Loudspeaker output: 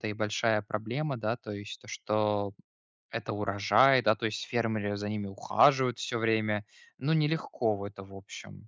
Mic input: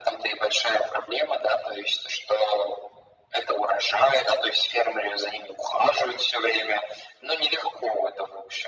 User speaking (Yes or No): No